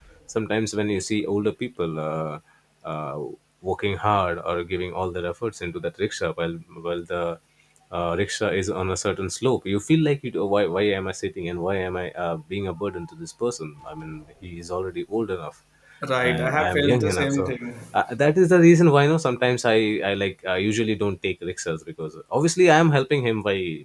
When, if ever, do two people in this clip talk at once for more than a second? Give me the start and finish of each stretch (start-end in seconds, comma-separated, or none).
16.2-17.5